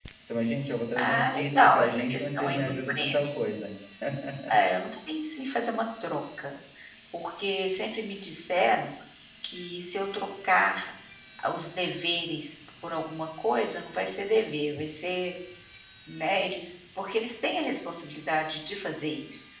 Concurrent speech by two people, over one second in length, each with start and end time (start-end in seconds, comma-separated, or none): 1.0-3.3